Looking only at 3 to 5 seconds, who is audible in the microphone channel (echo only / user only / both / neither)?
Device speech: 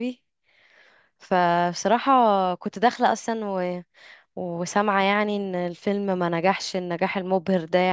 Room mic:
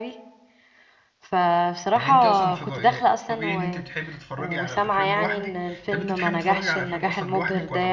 both